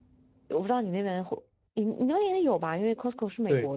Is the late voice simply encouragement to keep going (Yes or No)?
No